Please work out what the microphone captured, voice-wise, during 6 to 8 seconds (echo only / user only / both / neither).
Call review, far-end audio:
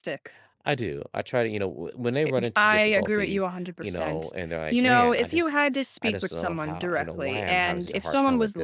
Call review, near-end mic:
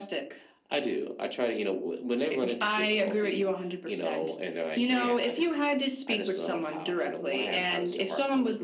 echo only